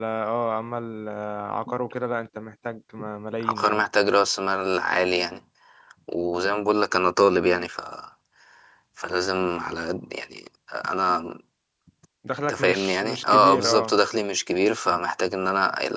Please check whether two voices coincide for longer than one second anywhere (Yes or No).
Yes